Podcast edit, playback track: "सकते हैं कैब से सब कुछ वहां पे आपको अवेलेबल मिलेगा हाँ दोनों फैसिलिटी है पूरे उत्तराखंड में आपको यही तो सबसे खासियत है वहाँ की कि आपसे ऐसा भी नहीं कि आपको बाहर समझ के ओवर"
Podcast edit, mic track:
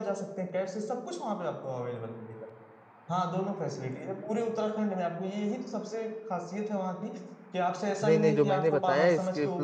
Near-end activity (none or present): present